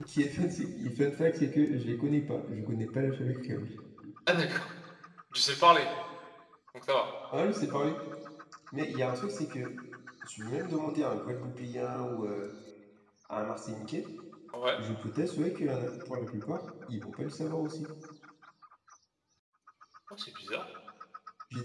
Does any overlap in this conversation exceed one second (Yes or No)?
No